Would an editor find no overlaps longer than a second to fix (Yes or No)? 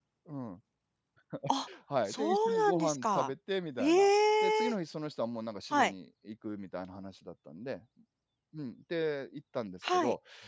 No